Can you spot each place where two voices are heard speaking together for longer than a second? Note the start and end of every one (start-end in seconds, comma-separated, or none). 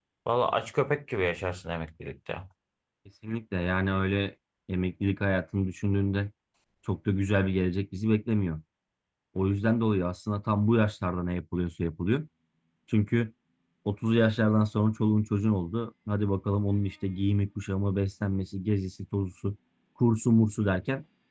none